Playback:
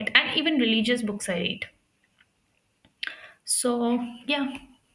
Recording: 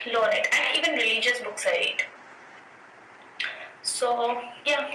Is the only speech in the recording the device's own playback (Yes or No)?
Yes